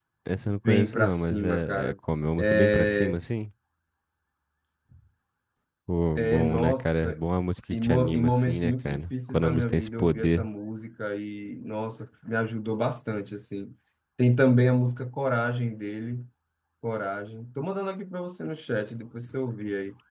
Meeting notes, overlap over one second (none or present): present